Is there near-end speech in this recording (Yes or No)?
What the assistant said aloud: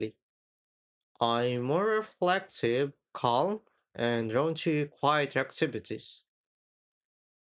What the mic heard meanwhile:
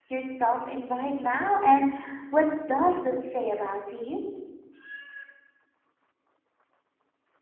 Yes